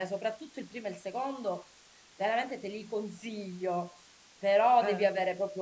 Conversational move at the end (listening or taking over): listening